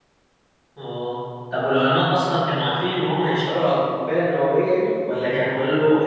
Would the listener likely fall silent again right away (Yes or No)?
Yes